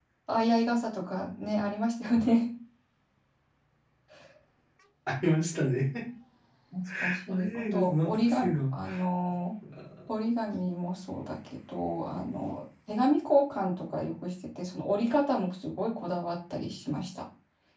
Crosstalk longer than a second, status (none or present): present